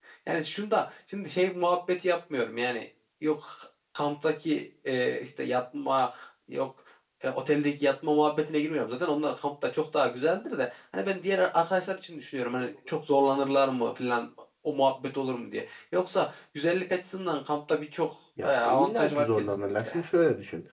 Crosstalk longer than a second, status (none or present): present